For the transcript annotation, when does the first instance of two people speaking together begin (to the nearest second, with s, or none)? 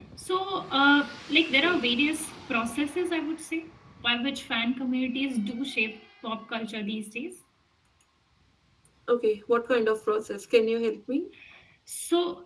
none